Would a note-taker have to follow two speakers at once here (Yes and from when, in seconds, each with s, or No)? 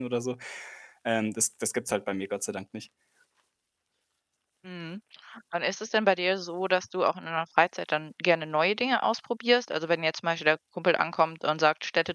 No